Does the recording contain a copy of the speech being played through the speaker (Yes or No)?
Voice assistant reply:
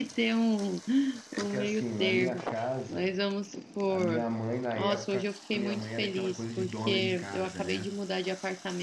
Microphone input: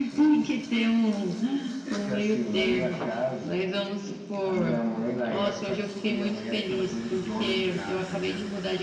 Yes